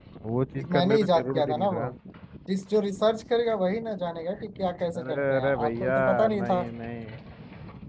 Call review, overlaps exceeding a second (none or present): present